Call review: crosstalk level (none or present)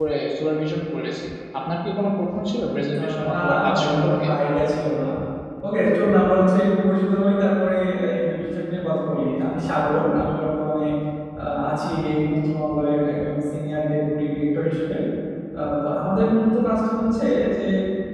present